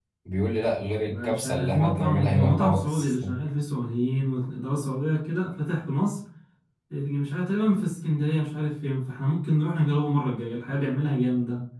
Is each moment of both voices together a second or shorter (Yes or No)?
No